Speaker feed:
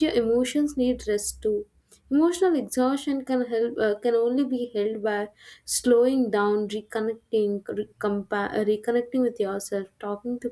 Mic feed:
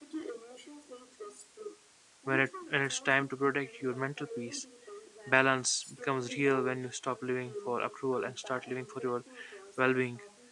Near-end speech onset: 2.3 s

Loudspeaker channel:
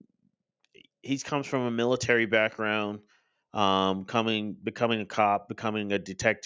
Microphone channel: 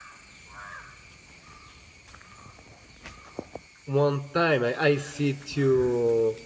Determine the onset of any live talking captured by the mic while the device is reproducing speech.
3.8 s

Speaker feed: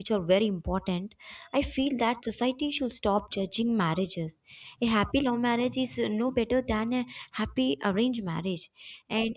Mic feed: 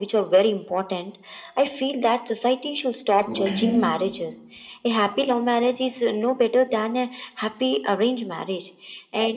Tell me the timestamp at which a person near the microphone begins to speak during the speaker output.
3.2 s

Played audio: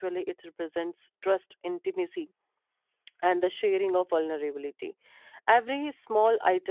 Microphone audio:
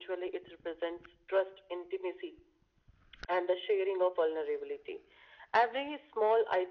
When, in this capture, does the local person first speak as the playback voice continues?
none

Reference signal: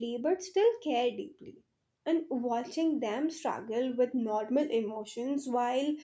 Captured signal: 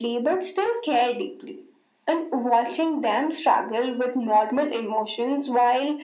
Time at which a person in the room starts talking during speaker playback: none

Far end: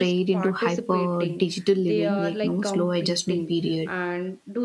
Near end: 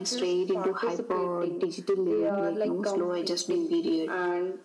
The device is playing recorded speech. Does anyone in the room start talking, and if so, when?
none

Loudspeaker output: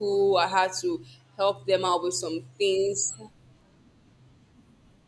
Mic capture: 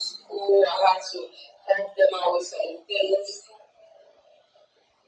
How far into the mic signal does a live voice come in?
none

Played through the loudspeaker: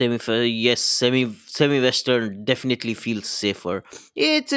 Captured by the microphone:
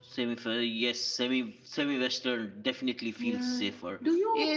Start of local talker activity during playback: 3.2 s

